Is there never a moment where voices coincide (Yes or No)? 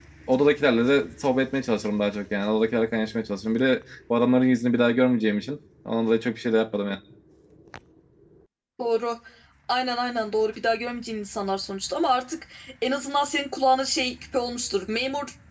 Yes